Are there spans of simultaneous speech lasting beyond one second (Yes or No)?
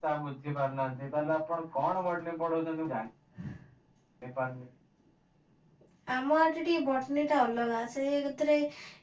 No